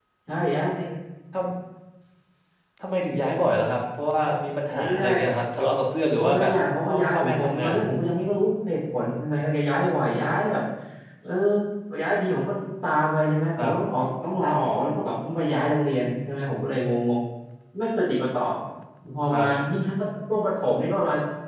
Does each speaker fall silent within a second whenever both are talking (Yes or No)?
No